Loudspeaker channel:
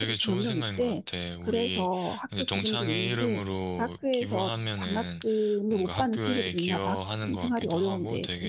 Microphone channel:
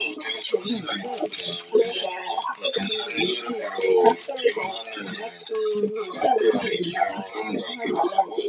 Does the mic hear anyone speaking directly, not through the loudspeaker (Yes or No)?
No